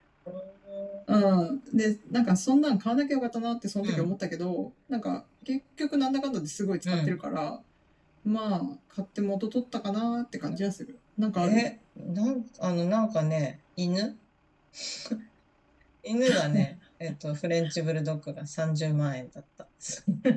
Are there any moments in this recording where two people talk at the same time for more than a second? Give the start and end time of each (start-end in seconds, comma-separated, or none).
none